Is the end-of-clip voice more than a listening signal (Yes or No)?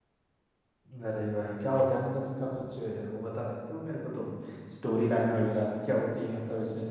No